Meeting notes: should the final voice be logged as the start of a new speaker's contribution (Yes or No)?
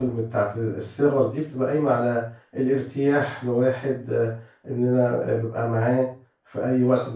No